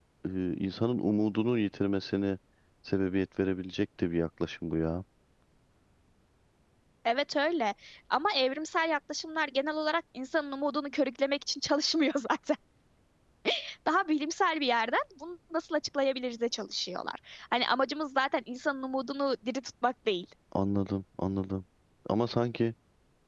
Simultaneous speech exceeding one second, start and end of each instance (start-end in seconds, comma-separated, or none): none